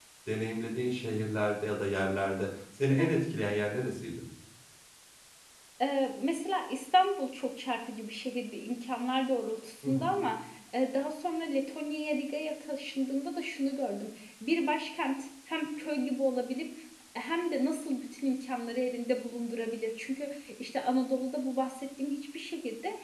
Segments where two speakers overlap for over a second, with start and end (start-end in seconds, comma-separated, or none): none